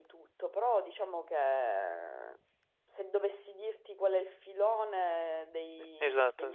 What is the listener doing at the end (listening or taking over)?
listening